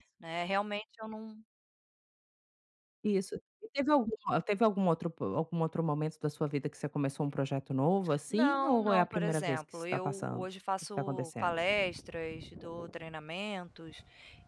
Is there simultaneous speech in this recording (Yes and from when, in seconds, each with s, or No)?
Yes, from 8.3 s